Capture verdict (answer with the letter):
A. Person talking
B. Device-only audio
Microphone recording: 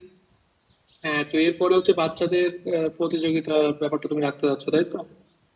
B